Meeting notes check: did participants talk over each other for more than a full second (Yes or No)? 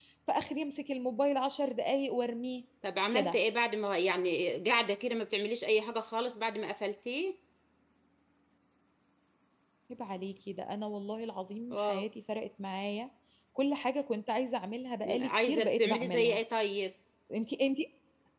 Yes